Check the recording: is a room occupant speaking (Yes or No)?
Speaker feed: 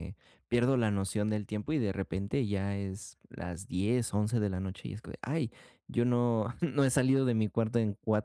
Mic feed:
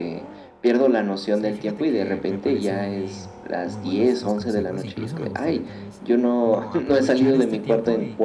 Yes